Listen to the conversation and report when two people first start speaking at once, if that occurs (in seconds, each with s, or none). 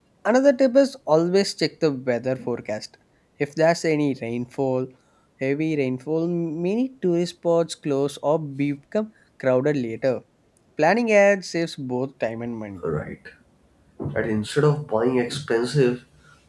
none